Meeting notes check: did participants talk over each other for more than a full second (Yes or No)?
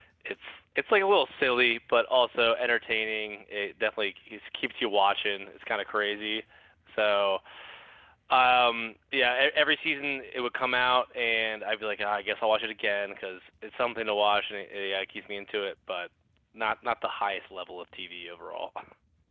No